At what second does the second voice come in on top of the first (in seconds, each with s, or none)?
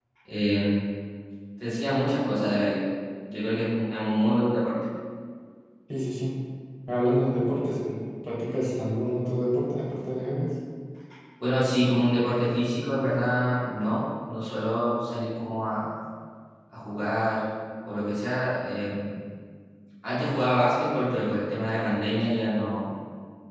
none